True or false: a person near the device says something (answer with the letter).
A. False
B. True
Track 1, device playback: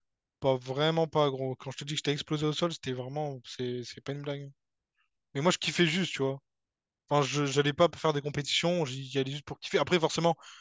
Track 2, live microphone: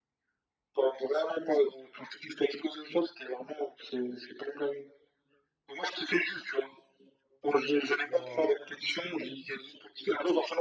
B